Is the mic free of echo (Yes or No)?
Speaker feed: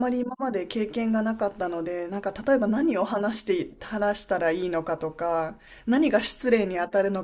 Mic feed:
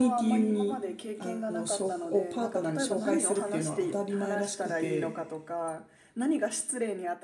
No